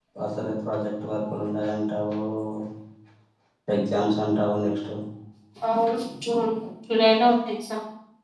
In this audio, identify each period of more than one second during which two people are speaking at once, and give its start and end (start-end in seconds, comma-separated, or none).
none